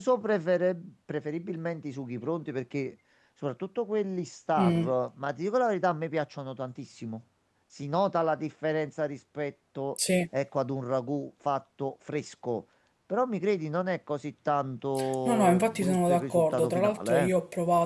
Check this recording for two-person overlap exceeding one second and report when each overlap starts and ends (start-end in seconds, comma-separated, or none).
15.2-17.3